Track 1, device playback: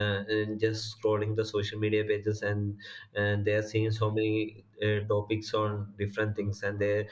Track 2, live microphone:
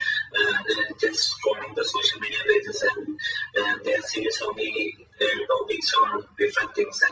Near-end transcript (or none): none